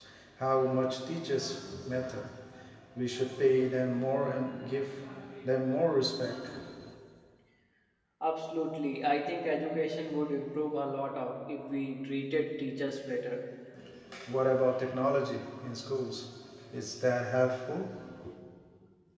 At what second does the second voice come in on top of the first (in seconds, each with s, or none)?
none